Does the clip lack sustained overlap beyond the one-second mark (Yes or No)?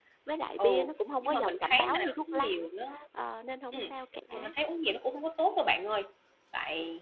No